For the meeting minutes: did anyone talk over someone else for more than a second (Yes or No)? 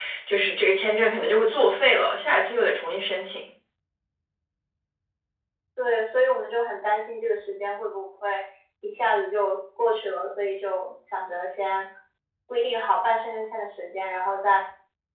No